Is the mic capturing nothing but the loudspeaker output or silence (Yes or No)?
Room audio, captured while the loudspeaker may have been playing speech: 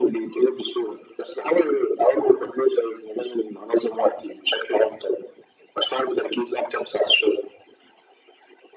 Yes